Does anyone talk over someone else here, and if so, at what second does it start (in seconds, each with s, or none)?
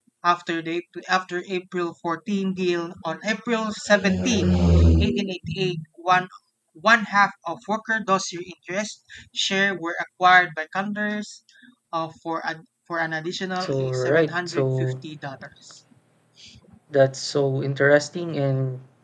13.6 s